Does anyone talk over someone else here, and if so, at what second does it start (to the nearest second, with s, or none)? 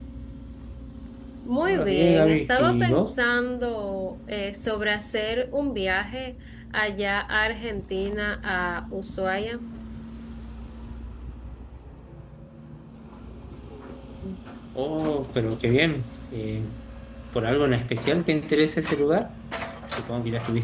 2 s